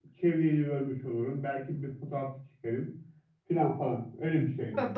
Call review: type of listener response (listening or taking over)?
taking over